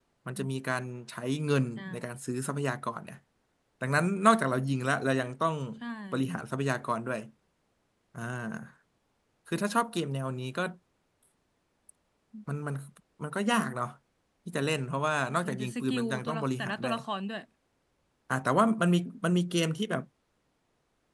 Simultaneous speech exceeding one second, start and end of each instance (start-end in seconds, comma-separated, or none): 15.4-16.9